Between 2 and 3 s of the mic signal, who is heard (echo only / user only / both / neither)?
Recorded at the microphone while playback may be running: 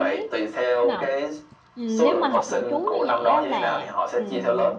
both